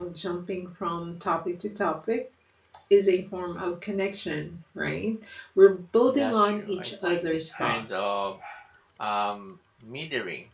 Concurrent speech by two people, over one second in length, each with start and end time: 6.1-8.1

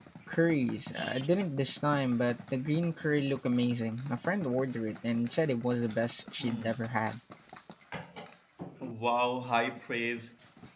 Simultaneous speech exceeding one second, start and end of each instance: none

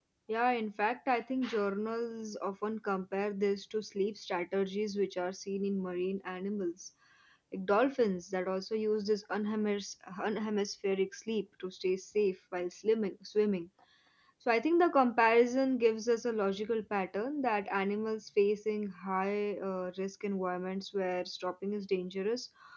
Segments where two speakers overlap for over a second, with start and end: none

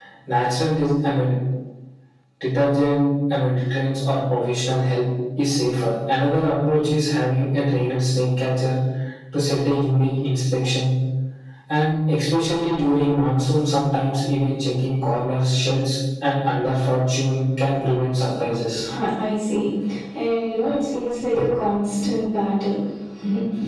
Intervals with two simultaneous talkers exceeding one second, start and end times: none

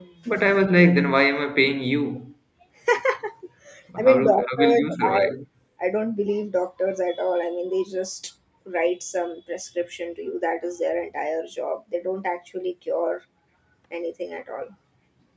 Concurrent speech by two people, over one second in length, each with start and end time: 4.0-5.3

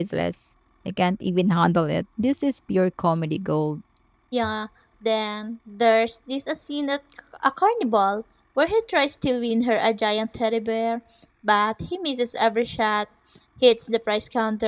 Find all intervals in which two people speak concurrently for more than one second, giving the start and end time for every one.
none

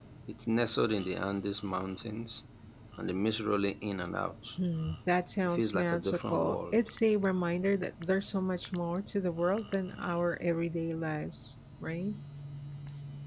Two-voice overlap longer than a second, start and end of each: 5.5-6.8

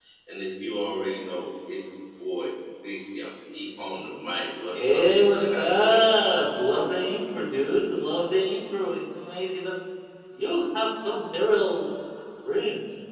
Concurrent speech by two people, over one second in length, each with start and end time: 4.7-6.1

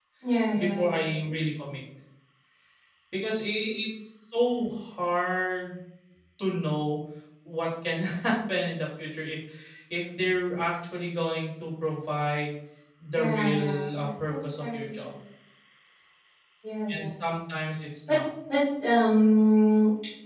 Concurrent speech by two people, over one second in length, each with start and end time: 13.1-15.1

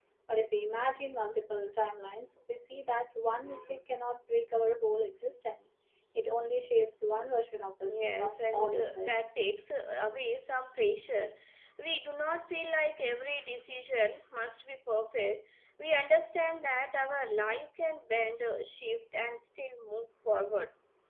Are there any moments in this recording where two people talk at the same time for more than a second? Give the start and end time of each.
7.9-9.1

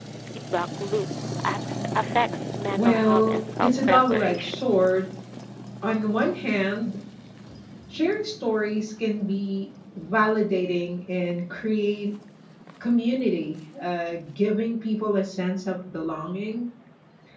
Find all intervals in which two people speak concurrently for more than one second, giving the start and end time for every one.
2.8-4.6

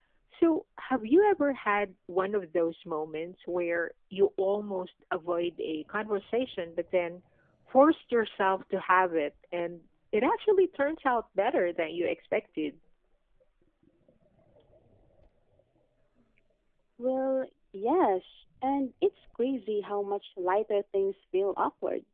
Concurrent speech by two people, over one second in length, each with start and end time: none

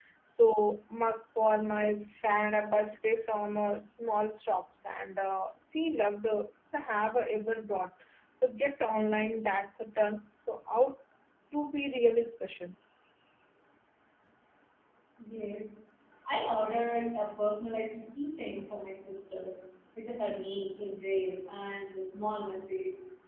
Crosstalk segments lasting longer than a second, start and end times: none

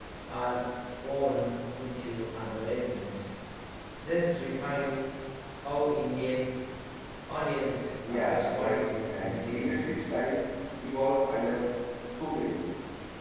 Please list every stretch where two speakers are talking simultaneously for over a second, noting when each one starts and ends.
8.1-9.9

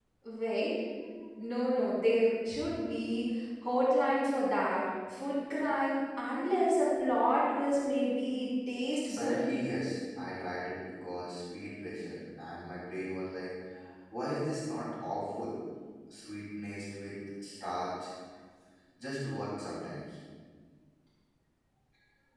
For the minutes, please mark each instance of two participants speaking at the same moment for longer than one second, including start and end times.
none

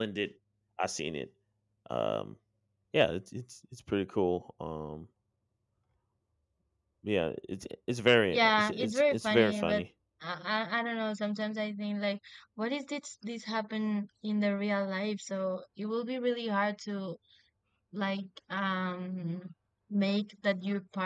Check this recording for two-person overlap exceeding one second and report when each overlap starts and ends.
8.3-9.8

